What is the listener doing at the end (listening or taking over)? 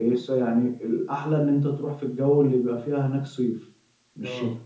listening